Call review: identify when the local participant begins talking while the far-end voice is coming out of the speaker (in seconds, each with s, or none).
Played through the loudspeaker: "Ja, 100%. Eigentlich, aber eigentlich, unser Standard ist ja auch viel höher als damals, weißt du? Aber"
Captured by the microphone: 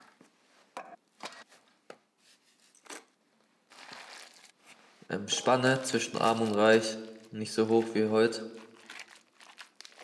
5.1 s